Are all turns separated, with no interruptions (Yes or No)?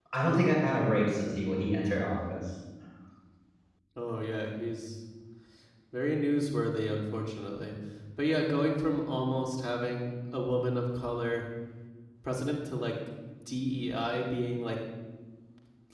Yes